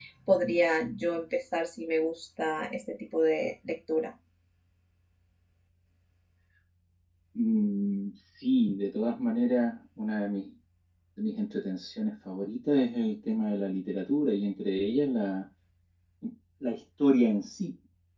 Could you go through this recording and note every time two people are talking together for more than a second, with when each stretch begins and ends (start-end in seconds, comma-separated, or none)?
none